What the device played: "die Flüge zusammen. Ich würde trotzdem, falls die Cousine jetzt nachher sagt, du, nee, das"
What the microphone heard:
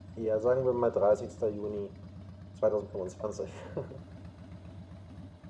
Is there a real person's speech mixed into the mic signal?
Yes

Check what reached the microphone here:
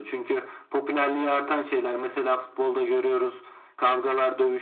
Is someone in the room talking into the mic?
No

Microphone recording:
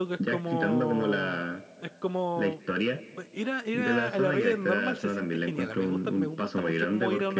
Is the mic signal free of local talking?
No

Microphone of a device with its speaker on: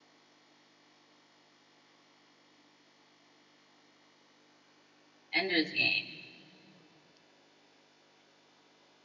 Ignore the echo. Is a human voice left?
Yes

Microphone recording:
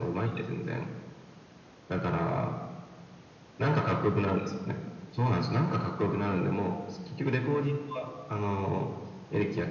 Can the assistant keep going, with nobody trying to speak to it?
Yes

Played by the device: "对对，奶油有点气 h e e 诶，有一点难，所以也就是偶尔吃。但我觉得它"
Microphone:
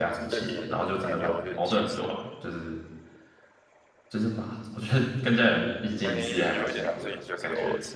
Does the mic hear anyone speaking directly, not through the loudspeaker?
Yes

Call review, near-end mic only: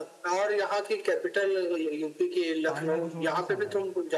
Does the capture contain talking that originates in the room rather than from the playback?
Yes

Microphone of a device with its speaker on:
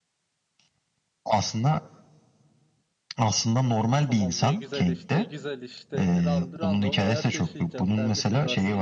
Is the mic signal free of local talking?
No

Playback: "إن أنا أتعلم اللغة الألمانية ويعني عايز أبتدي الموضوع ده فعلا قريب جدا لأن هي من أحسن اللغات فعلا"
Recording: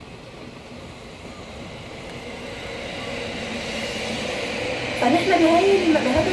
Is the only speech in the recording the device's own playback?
No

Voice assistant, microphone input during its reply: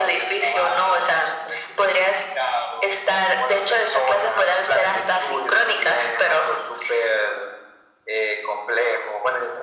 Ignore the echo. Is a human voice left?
No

